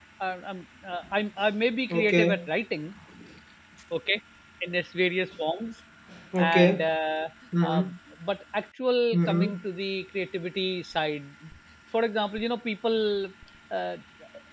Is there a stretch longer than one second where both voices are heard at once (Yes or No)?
No